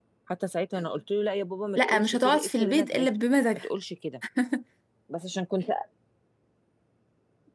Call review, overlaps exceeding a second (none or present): present